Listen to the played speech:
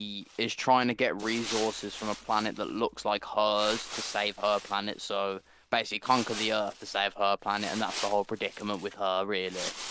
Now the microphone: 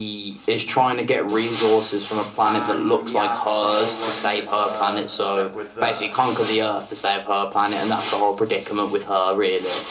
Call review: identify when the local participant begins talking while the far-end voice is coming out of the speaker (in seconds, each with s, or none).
2.4 s